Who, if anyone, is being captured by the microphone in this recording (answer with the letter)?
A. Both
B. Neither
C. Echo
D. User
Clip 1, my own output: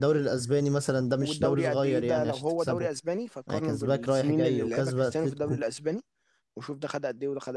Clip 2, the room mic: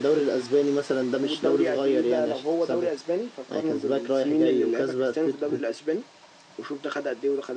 C